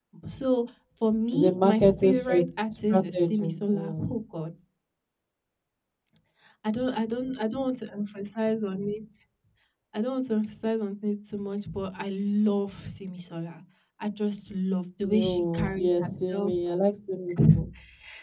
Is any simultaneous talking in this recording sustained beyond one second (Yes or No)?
Yes